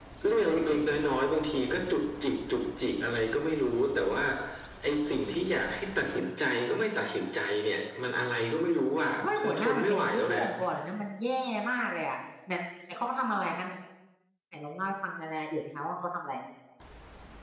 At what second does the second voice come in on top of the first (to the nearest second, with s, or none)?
9 s